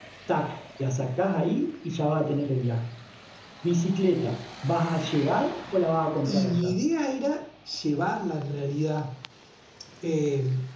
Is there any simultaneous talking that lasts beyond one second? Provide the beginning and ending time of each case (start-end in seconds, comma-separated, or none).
none